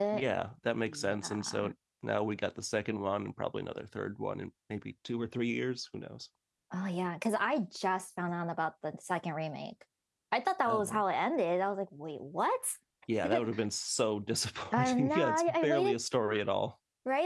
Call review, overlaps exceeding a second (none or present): present